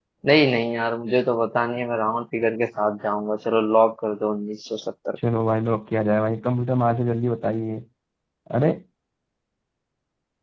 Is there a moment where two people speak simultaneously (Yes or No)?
No